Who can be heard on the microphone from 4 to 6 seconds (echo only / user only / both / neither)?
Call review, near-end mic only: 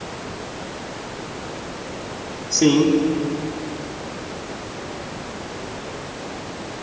neither